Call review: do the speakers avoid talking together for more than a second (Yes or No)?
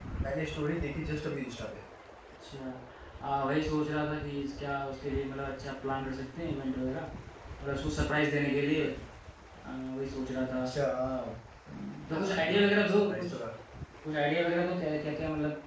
No